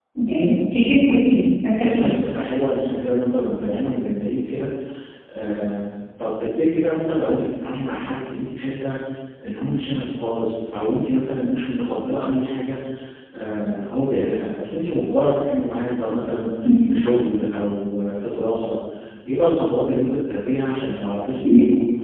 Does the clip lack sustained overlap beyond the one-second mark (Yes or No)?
Yes